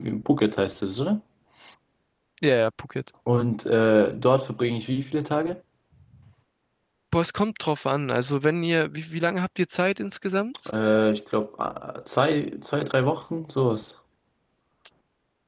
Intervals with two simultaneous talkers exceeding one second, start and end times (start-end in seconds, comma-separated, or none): none